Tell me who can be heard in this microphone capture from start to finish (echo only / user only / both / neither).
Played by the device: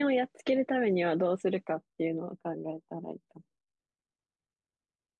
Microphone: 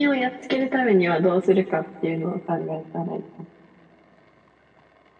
echo only